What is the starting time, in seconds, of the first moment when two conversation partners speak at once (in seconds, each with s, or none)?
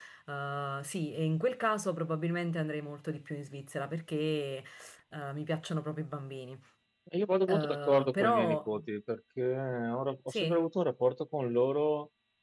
7.5 s